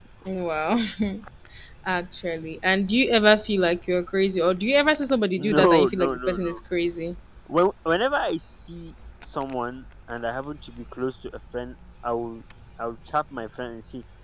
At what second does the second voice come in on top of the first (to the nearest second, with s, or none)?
5 s